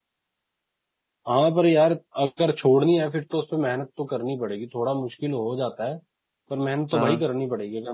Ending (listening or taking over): listening